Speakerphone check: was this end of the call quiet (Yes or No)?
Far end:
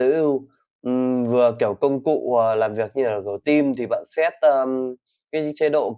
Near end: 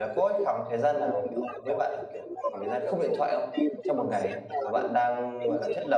No